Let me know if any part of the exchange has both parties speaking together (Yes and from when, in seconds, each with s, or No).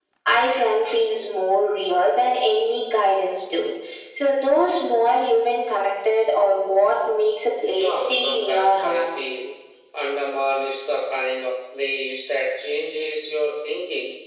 Yes, from 7.7 s